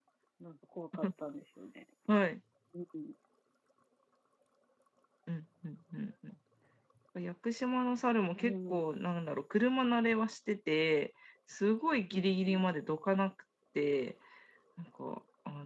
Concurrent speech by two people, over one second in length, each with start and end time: none

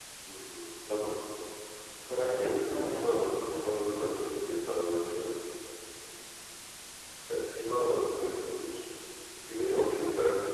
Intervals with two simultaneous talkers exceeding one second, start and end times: 2.3-4.1

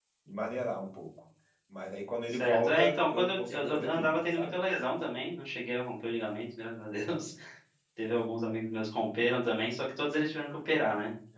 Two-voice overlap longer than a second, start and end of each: 2.3-4.6

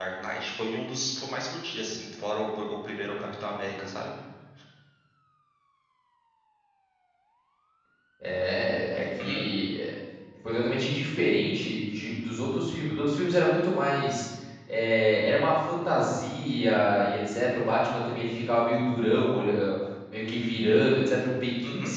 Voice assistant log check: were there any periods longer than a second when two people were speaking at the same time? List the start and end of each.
none

